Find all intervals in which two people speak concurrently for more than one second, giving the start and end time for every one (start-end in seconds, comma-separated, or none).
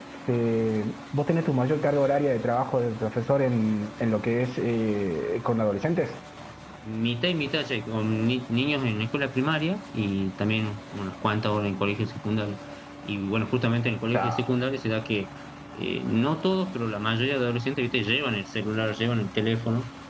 none